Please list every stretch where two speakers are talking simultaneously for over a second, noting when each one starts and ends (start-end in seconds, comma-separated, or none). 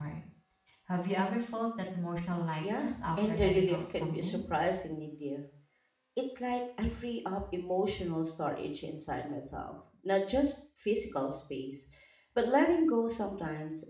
2.6-4.4